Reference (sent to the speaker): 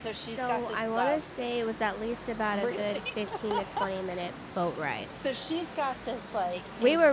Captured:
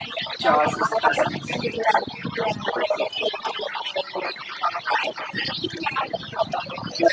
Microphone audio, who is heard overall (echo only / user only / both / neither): both